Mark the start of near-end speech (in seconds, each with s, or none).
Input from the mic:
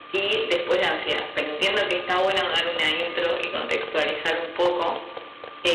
none